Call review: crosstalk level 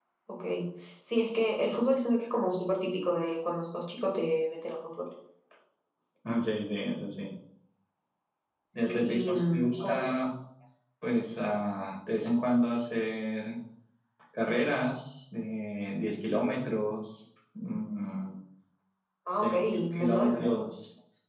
present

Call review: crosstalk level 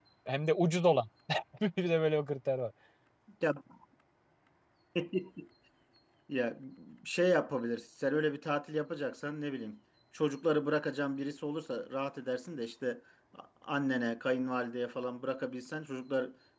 none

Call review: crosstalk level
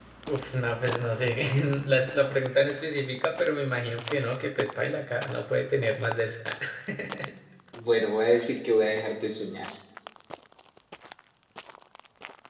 none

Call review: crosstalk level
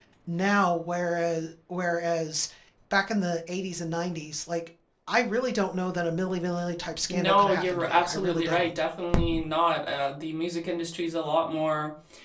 present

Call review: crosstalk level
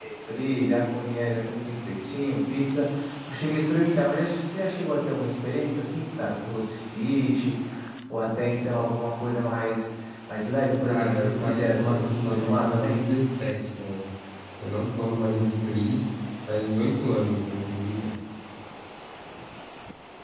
present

